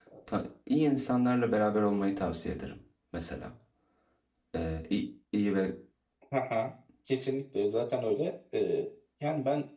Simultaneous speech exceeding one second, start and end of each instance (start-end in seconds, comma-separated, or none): none